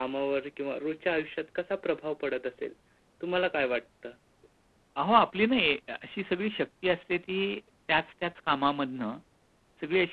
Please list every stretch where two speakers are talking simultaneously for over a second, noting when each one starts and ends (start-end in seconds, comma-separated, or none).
none